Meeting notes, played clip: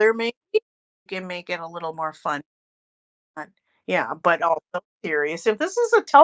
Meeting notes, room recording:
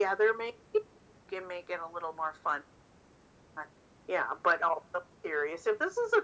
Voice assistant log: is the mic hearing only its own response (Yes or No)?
Yes